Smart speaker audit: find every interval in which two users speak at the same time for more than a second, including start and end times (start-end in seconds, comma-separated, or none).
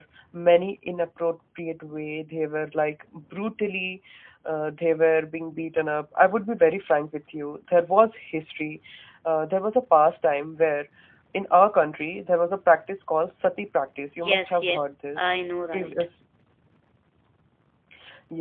14.2-15.9